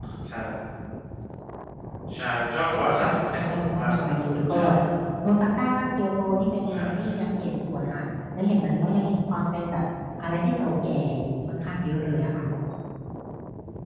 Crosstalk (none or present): present